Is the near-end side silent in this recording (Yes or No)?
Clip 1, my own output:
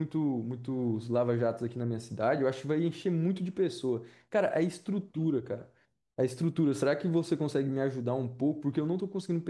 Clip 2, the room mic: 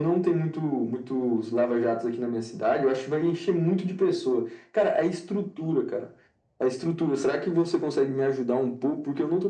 Yes